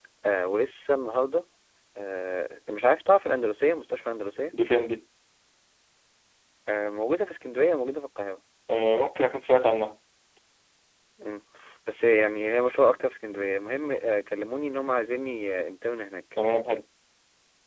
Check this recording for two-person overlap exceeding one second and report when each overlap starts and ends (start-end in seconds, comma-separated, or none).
none